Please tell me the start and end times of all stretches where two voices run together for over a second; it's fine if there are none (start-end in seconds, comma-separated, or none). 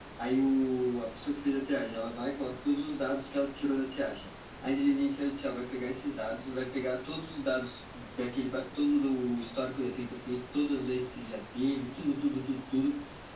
none